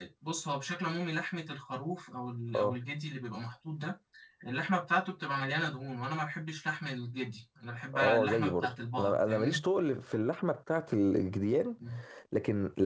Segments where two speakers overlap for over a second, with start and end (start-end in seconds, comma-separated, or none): 7.9-9.6